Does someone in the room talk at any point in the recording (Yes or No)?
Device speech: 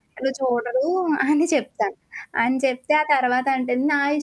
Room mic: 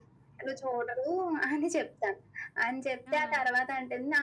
Yes